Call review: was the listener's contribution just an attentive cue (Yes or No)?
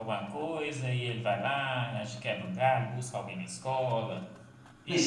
No